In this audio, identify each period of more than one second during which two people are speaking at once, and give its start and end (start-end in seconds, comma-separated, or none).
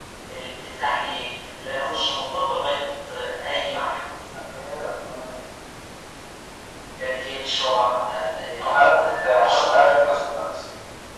8.6-9.9